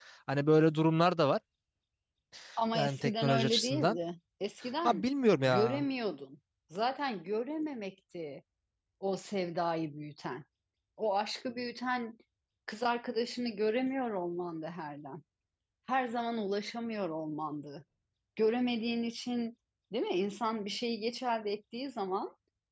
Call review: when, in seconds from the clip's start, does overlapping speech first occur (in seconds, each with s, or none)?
2.7 s